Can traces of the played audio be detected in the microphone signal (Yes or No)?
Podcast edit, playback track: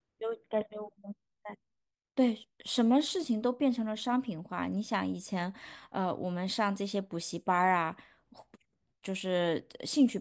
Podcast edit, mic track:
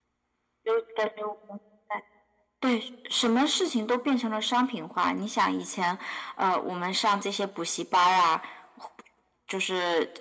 Yes